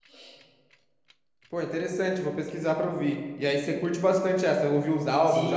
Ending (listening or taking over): taking over